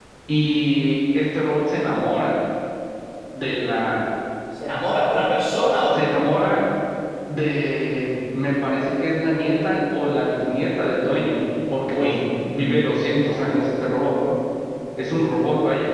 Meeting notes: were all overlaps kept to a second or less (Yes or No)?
Yes